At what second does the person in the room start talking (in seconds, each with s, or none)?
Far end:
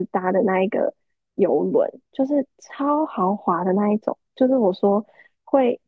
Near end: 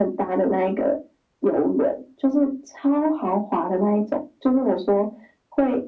none